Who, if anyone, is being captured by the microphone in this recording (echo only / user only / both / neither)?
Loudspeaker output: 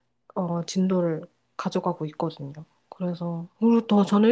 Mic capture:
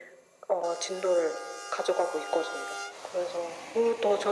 echo only